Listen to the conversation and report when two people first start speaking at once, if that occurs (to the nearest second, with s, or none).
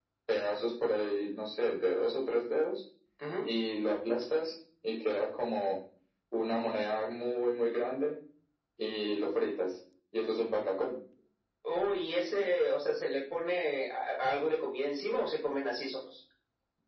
none